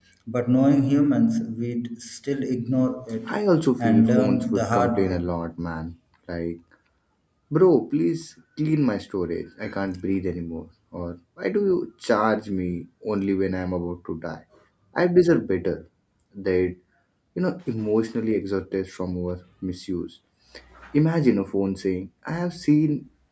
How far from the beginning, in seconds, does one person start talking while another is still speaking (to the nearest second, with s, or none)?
4 s